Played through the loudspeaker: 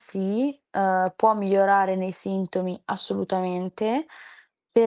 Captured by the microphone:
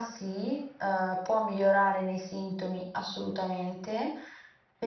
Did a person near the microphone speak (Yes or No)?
No